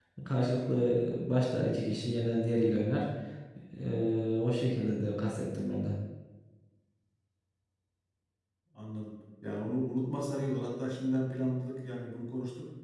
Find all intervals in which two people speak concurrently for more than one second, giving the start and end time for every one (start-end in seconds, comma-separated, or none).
none